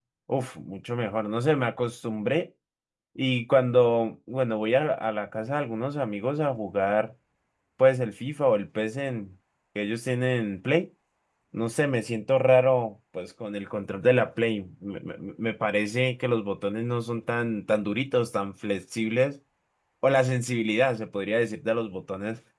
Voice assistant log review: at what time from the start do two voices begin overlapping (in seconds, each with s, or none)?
none